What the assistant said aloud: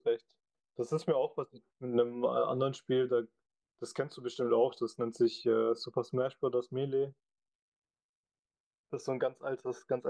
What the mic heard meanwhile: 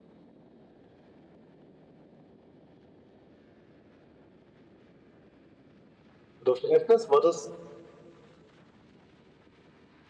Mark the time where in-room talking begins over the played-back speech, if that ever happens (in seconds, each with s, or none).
6.4 s